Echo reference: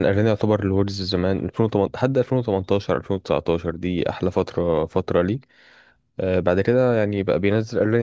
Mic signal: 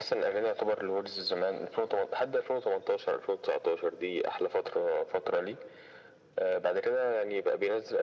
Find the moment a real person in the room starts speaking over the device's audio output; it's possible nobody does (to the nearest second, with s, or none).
none